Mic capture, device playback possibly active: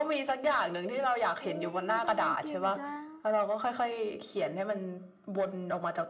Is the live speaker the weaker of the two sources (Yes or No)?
Yes